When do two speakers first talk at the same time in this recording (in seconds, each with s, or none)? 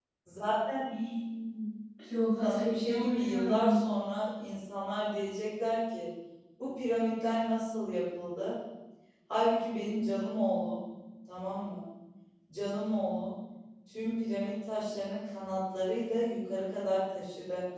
2.4 s